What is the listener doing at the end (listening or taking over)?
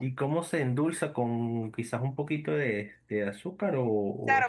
taking over